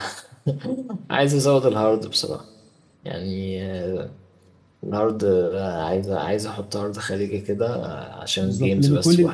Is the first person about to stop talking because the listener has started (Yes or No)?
Yes